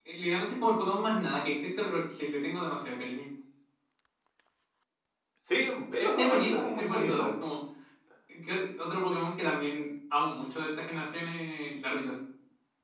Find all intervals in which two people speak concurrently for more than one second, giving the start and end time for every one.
6.0-7.3

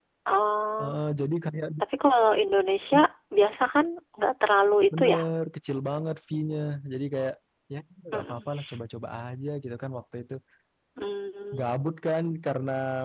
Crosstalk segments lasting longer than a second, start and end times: none

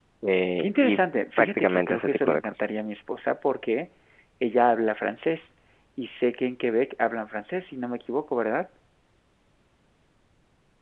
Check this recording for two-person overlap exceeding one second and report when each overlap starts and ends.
1.4-2.6

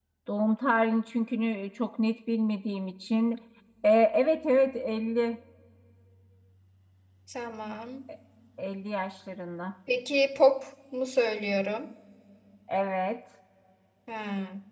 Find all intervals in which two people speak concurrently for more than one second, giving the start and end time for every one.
none

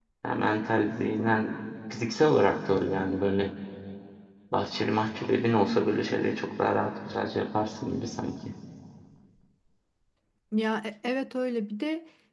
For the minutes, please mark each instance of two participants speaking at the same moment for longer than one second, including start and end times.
none

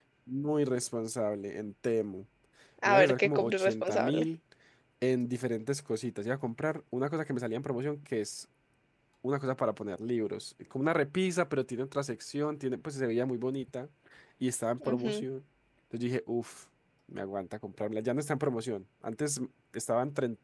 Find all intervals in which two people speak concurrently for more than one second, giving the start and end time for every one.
2.9-4.2

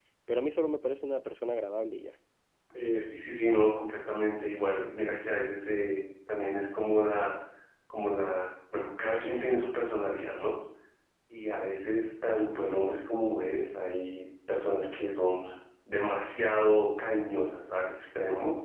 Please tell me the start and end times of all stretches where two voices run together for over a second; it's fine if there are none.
none

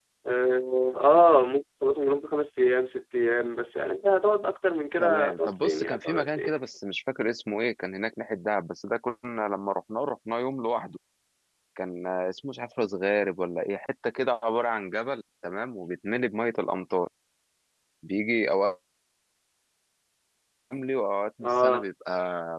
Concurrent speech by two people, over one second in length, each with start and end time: 5.0-6.6

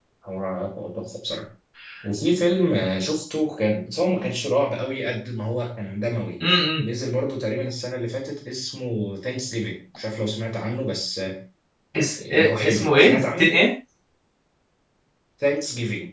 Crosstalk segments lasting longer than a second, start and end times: 12.2-13.5

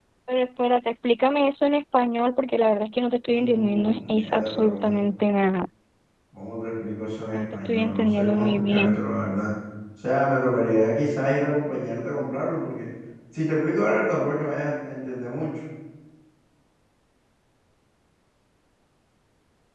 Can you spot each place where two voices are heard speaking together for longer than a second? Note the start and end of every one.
3.3-5.0, 7.3-9.0

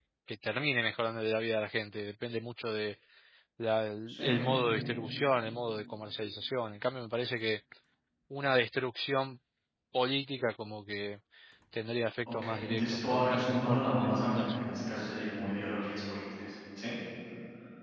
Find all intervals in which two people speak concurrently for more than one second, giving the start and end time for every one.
12.3-14.6

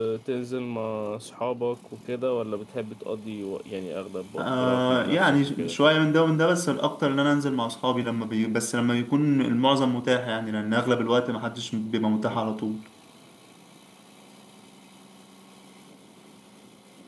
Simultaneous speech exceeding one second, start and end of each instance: 4.4-5.8

